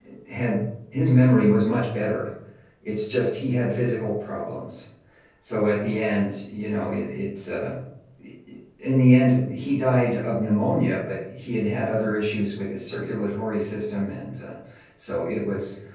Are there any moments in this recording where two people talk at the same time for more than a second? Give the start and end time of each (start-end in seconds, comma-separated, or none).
none